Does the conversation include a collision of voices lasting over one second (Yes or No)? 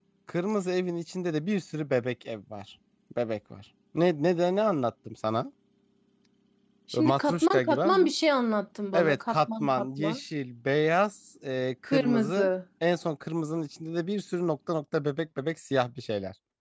Yes